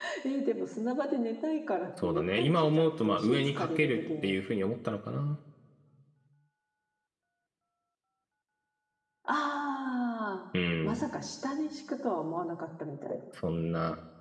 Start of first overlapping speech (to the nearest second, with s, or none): 2 s